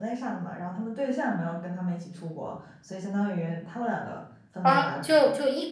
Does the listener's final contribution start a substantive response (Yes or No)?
Yes